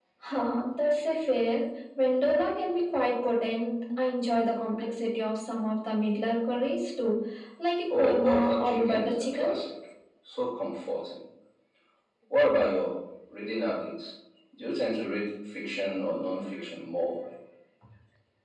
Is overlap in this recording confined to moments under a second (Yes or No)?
No